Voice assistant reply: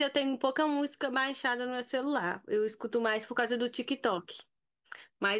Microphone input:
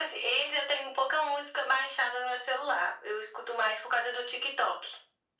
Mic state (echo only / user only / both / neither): echo only